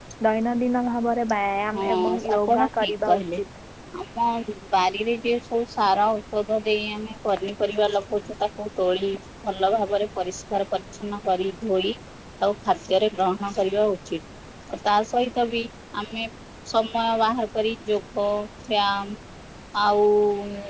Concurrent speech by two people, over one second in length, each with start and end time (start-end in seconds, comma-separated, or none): 1.8-3.2